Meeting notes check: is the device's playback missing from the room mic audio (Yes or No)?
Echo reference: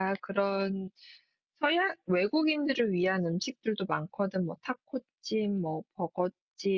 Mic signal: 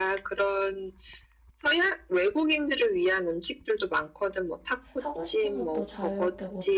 No